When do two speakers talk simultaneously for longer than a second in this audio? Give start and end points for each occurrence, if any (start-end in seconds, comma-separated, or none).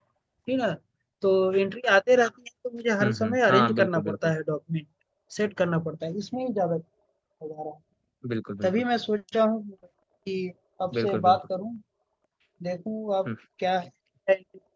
3.0-4.3